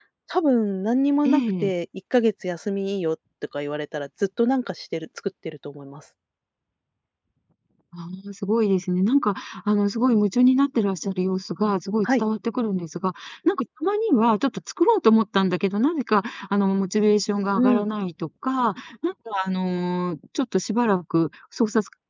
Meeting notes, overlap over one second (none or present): none